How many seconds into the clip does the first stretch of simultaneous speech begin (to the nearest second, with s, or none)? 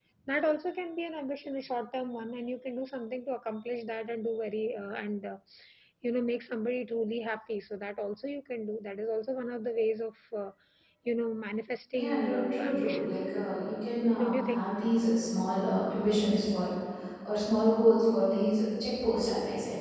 12 s